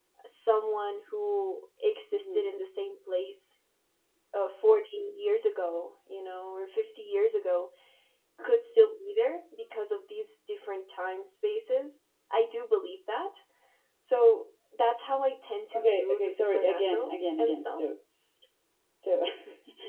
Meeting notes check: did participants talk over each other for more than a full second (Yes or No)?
Yes